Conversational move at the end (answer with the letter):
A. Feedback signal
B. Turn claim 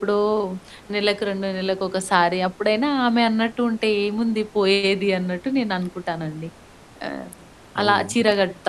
A